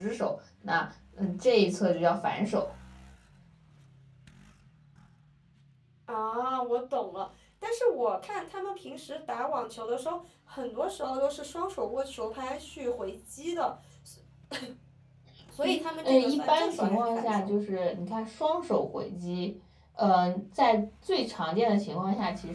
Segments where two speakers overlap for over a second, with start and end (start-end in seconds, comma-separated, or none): 15.6-17.5